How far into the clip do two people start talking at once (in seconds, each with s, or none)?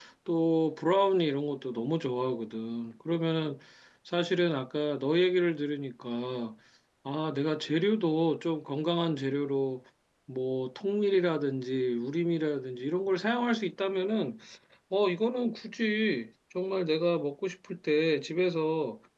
none